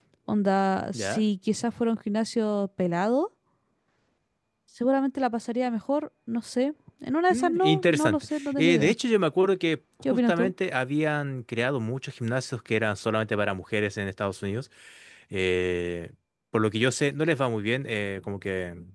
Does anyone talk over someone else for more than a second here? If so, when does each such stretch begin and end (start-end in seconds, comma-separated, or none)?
7.3-8.9